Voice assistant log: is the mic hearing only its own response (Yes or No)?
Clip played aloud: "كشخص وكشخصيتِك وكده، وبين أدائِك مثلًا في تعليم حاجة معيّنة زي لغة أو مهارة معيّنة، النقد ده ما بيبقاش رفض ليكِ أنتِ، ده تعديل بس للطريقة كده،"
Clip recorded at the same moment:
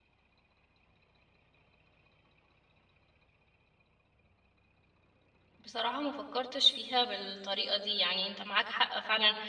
No